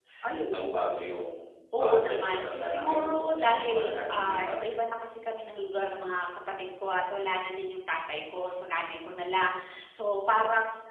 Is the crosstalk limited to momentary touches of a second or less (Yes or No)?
No